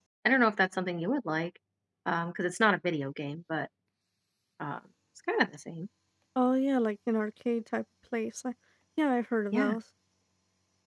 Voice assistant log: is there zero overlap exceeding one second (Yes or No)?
Yes